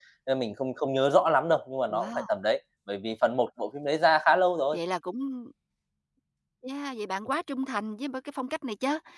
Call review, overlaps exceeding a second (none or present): none